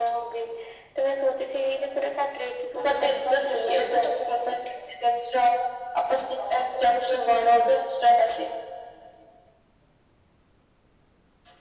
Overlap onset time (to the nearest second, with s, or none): 3 s